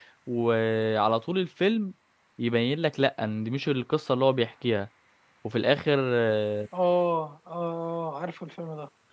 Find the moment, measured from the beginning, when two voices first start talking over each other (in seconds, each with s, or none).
none